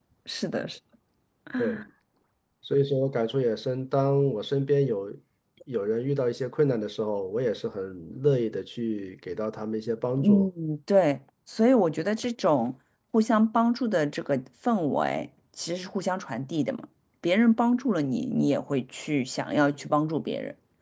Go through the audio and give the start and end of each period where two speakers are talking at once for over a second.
none

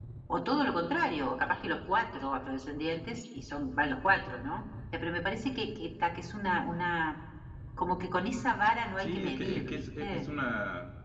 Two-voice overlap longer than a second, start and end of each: 9.0-10.3

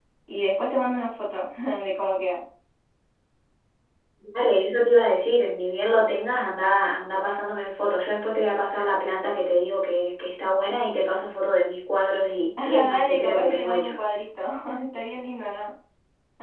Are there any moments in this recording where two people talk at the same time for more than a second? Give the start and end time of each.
12.6-13.9

